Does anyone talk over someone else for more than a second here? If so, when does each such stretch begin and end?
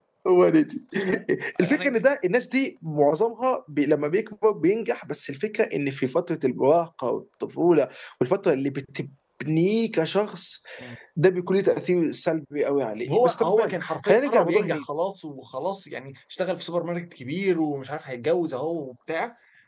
13.1-14.8

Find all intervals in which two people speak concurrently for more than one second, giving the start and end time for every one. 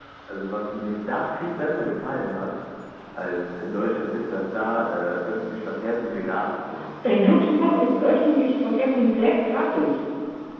none

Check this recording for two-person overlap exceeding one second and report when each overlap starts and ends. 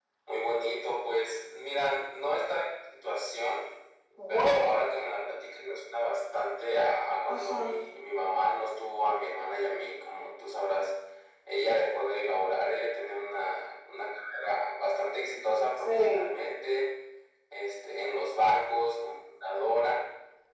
none

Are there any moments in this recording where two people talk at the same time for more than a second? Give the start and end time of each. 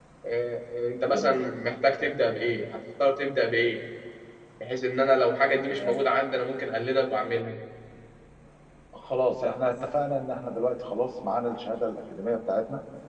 none

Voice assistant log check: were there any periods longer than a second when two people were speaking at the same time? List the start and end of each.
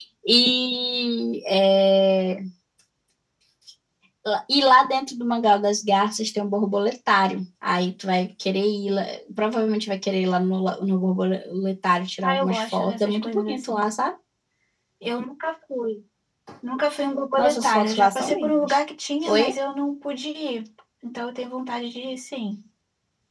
12.2-13.8, 17.4-18.7

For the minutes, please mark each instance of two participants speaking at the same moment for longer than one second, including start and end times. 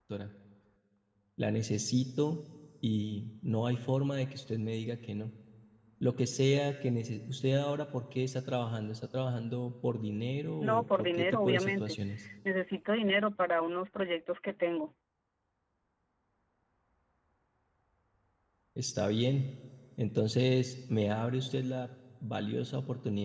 10.6-12.0

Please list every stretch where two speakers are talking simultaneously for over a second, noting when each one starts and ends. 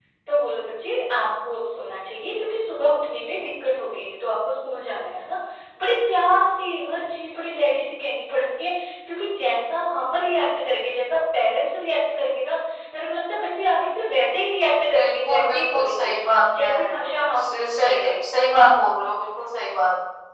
14.9-16.2, 16.6-18.2

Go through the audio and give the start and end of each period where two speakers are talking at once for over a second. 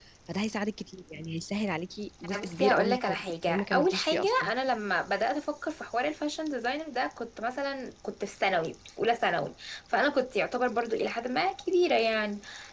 2.4-4.5

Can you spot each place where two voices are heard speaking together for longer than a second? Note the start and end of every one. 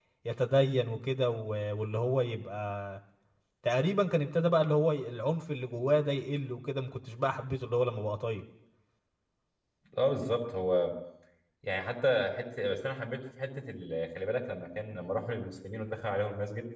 none

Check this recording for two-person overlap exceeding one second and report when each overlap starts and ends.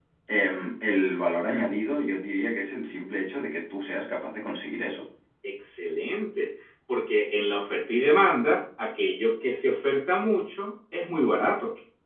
none

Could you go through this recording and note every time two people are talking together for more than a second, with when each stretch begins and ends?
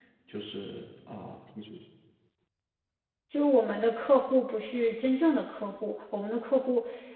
none

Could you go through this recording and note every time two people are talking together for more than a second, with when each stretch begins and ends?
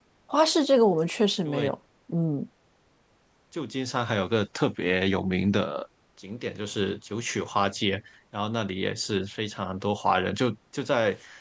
none

